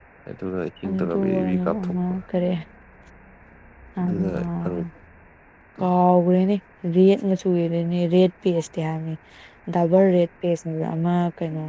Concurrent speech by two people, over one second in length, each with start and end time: 0.8-2.2

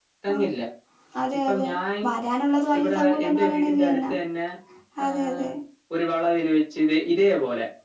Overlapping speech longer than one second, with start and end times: 2.8-4.1

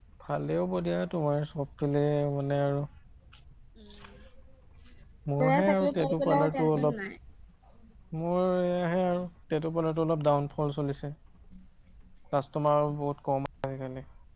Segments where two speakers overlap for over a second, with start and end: 5.4-6.9

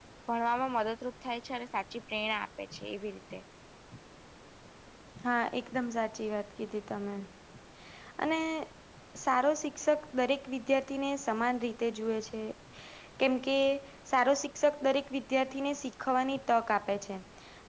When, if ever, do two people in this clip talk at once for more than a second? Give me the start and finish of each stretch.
none

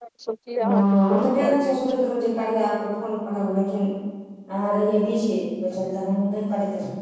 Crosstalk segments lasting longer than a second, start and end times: 0.6-1.9

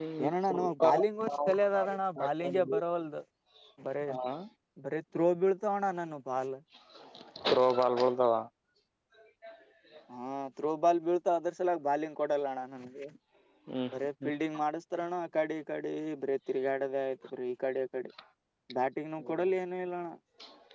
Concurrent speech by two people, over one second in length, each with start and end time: 1.3-2.8

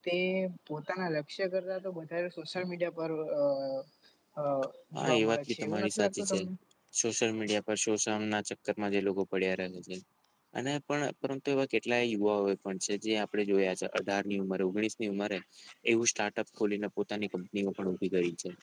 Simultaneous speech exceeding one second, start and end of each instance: 5.0-6.4

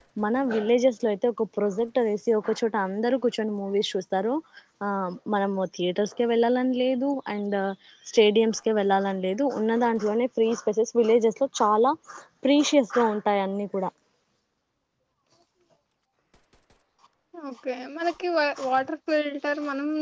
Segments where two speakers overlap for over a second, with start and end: none

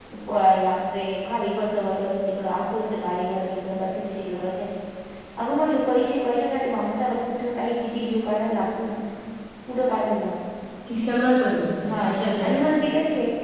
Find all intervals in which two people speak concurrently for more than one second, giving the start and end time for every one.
none

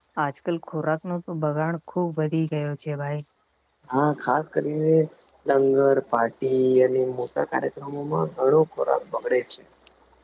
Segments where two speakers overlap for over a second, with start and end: none

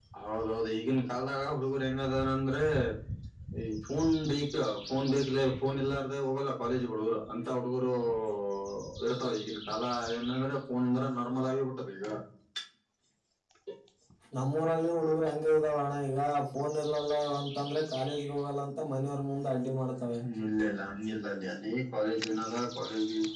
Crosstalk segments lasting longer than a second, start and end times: none

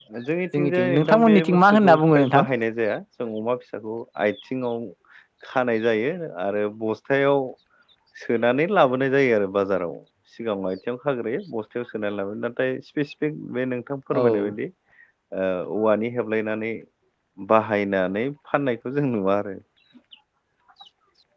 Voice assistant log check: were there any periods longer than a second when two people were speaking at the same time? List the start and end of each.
0.5-2.5

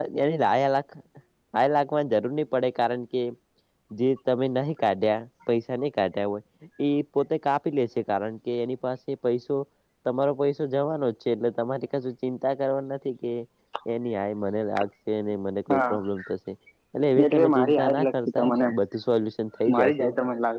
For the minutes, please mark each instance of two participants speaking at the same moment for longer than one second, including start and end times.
17.3-18.7

